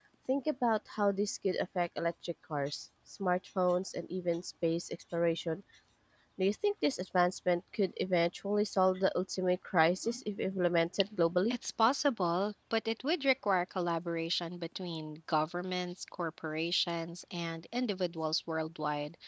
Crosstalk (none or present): none